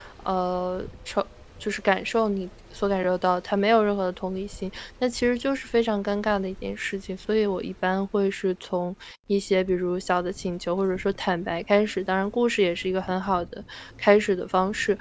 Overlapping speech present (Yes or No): No